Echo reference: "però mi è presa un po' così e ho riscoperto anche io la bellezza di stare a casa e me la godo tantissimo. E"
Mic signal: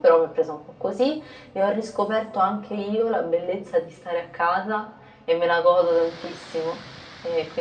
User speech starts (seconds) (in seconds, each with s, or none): none